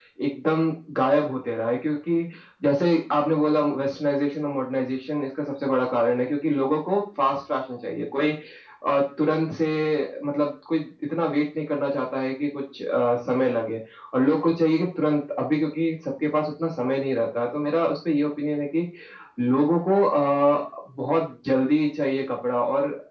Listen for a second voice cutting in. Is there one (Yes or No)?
No